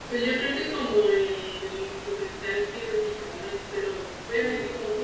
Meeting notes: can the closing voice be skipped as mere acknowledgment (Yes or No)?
Yes